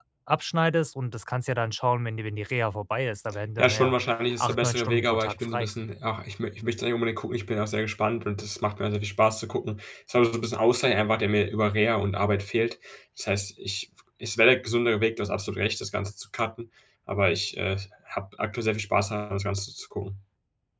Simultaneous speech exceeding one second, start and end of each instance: 4.4-5.7

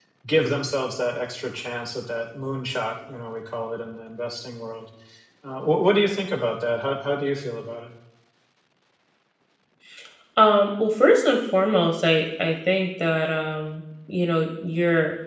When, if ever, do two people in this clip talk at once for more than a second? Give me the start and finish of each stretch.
none

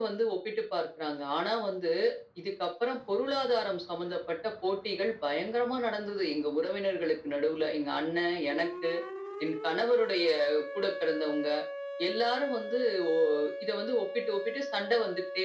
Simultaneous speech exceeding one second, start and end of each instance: none

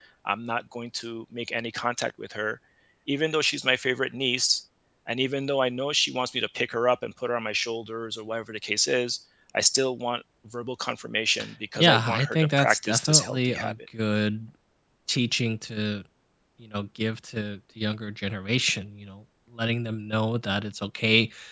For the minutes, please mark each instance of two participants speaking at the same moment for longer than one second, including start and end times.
11.8-13.7

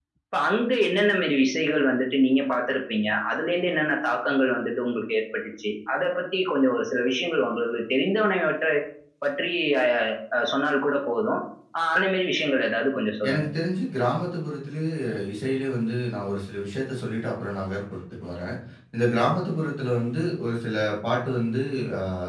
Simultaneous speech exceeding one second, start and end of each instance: none

